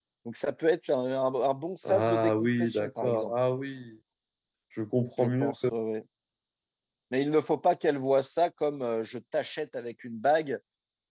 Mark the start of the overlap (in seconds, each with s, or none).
1.9 s